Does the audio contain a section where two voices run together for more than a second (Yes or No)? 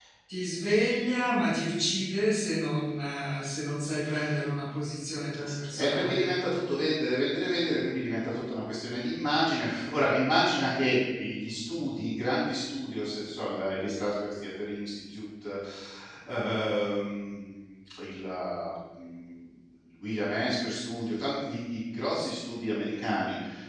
No